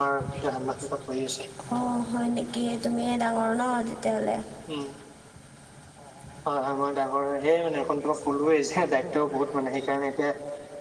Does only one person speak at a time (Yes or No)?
Yes